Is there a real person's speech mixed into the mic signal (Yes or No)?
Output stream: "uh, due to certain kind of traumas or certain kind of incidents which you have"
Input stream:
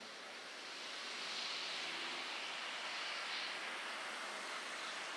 No